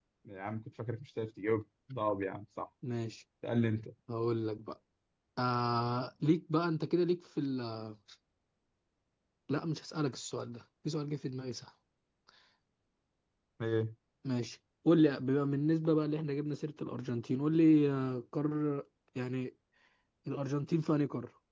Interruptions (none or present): none